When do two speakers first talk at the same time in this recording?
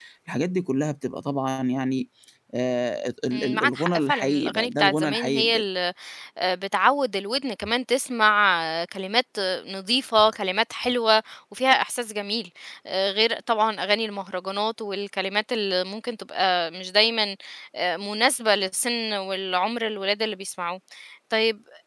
3.3 s

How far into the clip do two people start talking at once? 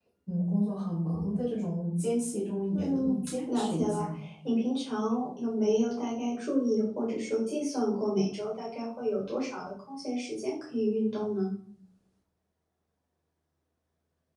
2.7 s

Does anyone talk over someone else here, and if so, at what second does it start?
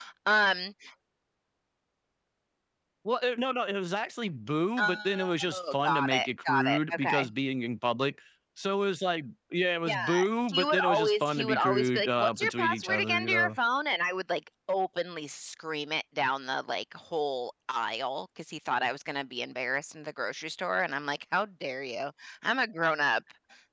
4.8 s

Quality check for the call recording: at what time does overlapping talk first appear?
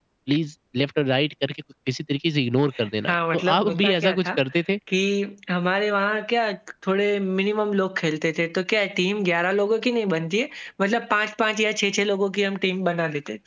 3.1 s

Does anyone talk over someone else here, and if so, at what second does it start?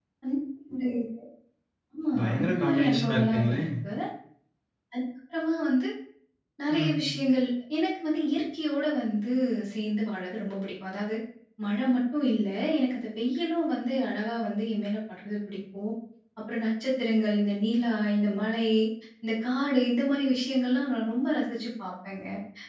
2.2 s

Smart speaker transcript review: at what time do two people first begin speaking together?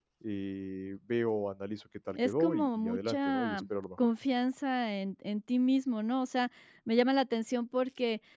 2.2 s

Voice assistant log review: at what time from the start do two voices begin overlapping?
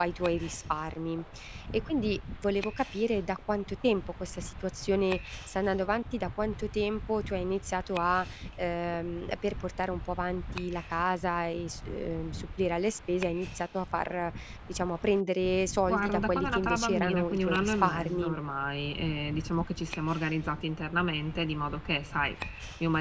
15.9 s

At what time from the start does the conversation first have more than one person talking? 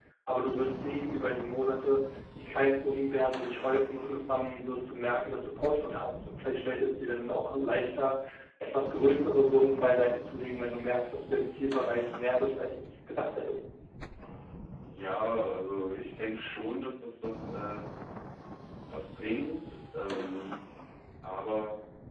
none

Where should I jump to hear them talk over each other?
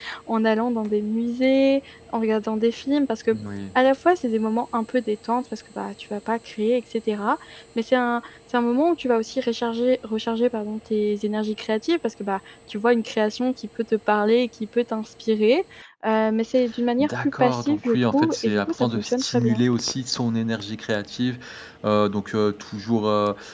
17.0 s

